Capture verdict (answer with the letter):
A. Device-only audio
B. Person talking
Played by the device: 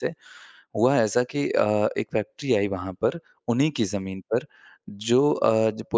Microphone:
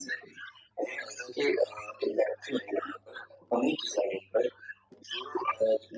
A